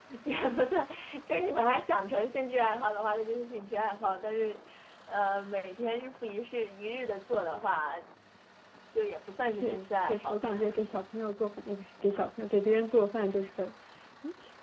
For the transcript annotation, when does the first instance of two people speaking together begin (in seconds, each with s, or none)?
9.6 s